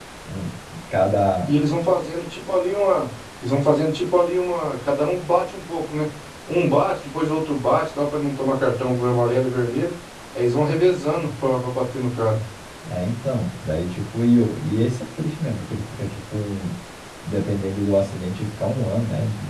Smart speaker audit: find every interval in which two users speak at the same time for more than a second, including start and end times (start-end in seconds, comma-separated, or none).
none